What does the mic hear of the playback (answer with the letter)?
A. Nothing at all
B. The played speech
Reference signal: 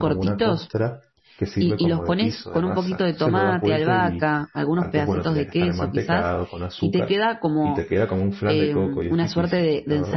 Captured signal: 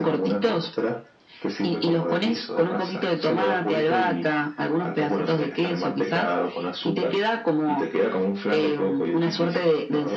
B